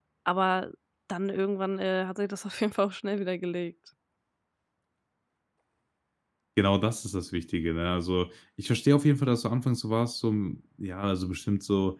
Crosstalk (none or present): none